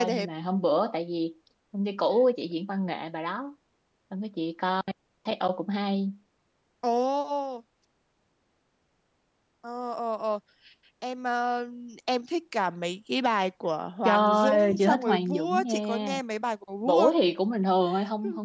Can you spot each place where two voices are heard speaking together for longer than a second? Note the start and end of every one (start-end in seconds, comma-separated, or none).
14.1-16.2